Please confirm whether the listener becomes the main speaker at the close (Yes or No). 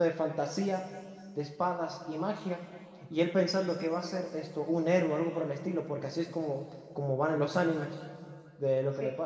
No